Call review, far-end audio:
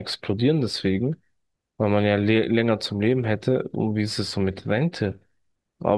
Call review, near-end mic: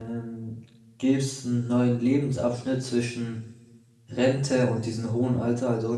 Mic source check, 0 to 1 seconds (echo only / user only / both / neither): user only